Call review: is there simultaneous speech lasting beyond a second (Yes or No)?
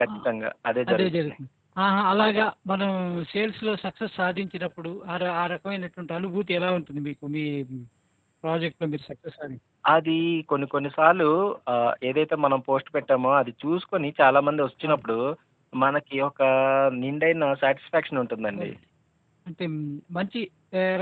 No